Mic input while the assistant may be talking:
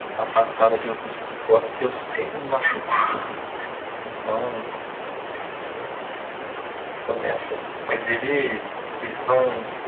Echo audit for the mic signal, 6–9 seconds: echo only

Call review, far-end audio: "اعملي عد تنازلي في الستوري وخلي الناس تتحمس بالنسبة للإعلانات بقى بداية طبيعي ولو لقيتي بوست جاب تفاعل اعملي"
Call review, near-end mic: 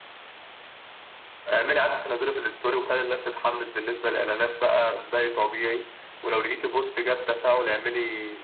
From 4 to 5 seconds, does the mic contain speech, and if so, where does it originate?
echo only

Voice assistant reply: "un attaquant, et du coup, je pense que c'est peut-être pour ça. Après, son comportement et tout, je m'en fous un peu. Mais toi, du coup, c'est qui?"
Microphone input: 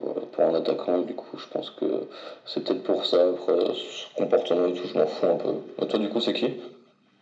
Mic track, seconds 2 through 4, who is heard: echo only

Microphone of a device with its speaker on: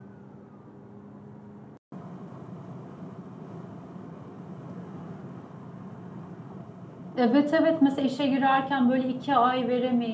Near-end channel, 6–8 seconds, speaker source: user only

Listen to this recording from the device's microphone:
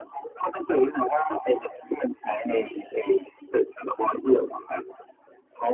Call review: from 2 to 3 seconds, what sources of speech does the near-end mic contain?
echo only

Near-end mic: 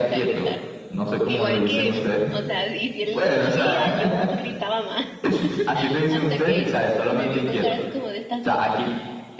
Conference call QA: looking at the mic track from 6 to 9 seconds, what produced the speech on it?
both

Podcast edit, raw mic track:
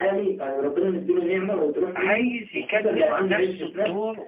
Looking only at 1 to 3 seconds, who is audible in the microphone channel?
both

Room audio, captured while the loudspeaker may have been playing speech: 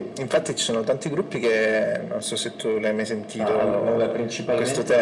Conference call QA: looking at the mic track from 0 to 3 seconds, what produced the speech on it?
echo only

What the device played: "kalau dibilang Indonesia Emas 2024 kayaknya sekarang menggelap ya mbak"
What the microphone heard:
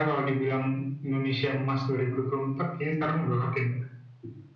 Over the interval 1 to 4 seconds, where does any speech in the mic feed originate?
echo only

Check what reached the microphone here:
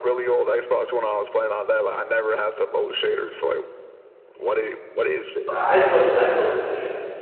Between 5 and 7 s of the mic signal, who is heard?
both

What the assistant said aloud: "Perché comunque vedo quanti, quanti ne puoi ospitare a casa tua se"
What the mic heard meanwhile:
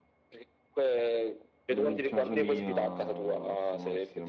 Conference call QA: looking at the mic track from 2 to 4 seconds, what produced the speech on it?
both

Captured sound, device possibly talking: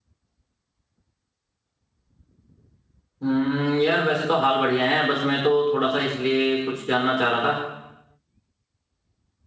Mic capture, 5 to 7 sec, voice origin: user only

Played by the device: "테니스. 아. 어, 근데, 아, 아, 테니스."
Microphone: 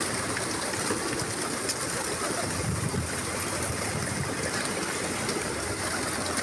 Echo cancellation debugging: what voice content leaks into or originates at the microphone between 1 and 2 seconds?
neither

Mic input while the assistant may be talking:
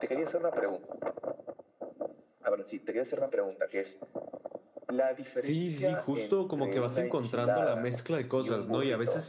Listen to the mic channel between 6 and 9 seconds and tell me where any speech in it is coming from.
both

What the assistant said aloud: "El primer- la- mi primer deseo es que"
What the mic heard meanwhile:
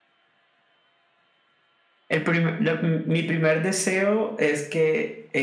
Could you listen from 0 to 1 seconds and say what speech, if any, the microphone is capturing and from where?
neither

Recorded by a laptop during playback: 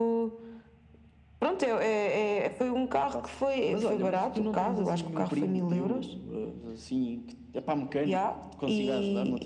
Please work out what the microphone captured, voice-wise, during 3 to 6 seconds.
echo only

